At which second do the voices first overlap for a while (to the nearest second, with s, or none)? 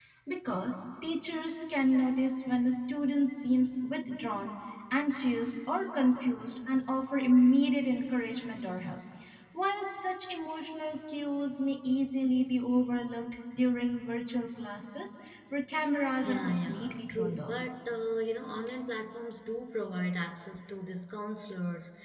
16 s